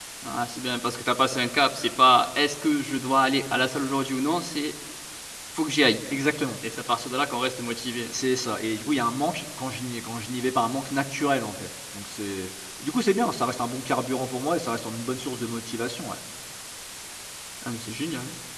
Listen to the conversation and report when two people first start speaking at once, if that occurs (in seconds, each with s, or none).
none